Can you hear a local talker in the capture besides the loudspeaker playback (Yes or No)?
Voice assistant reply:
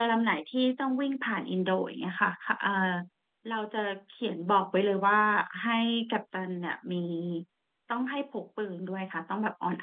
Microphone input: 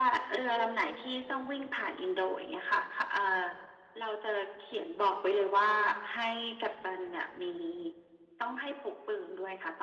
No